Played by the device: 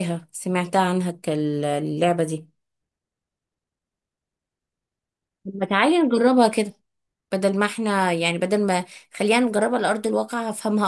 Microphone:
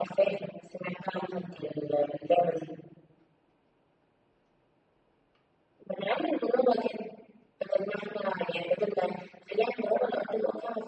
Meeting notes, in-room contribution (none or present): none